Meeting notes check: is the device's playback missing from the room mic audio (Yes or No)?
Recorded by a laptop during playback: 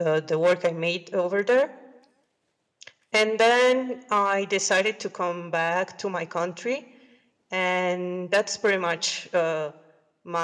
Yes